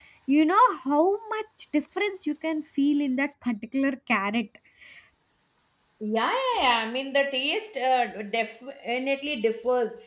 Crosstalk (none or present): none